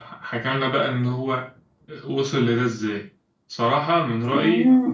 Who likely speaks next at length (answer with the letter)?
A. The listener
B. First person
B